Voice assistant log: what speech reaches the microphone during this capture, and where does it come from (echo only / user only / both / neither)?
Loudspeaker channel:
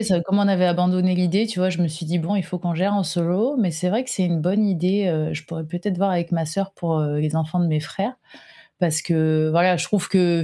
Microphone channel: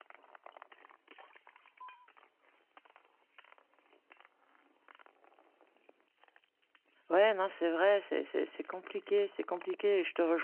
user only